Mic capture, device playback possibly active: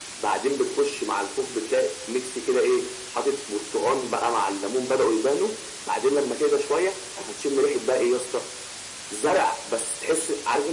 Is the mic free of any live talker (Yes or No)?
Yes